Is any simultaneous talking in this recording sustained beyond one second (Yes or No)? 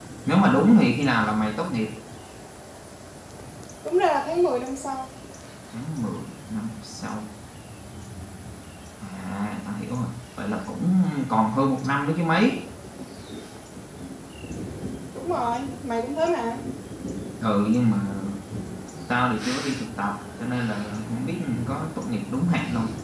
No